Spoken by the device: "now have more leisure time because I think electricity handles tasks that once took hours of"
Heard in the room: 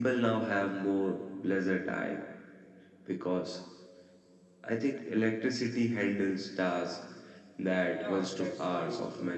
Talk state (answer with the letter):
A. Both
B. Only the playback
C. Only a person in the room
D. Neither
A